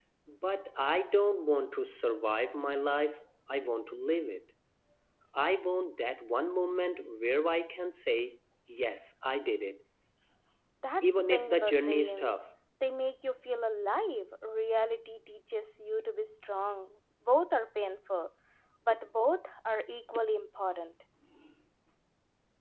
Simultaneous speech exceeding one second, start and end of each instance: 11.0-12.4

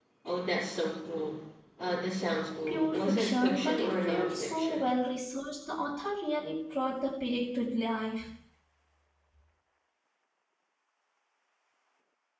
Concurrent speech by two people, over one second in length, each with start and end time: 2.7-4.8

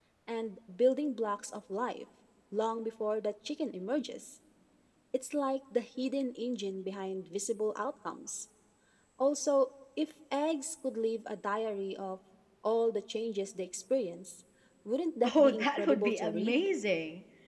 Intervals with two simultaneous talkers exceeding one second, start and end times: 15.2-16.7

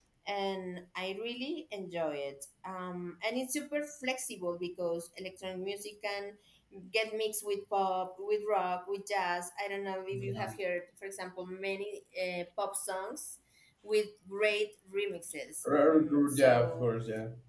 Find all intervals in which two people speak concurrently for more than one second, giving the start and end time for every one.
15.7-16.9

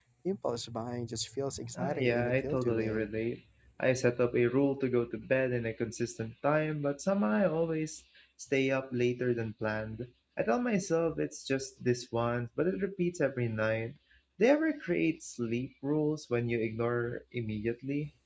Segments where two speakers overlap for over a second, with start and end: 1.8-3.1

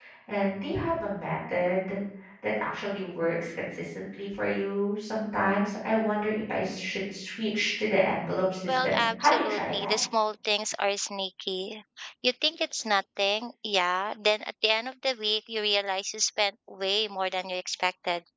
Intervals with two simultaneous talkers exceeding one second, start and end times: 8.7-9.9

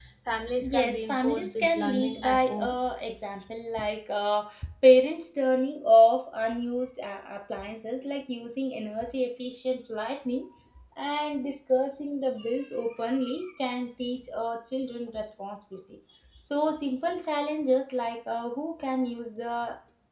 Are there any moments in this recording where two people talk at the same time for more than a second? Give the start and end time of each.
0.7-2.8

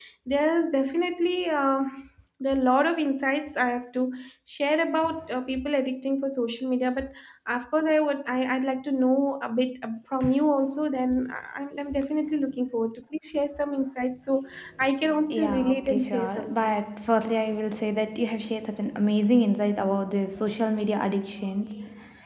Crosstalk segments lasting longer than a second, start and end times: 15.3-16.8

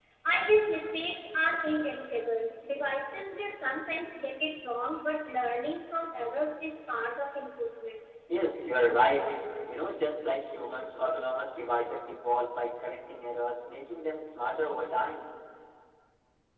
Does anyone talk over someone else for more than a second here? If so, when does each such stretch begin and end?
none

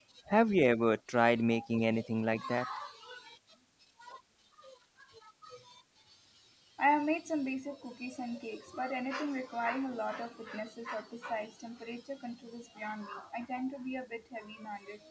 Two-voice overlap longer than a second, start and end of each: none

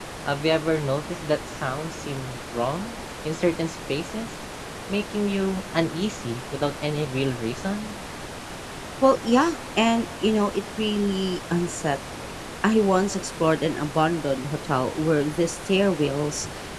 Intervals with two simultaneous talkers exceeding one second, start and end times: none

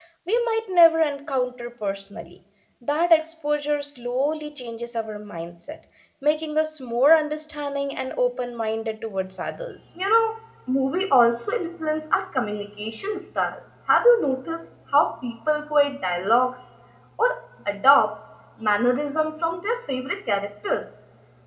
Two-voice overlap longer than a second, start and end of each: none

